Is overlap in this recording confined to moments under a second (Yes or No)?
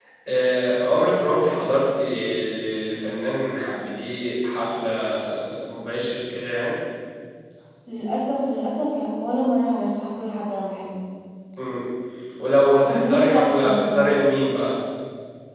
No